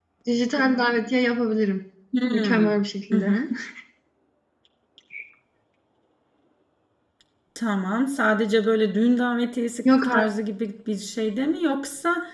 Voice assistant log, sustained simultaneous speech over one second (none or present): none